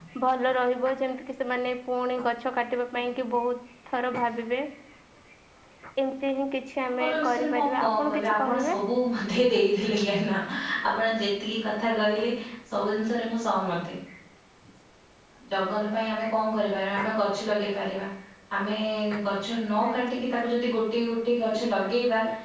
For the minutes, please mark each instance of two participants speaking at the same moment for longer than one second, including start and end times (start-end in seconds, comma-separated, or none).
6.8-8.8